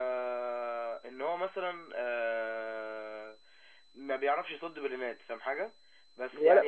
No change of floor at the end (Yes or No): No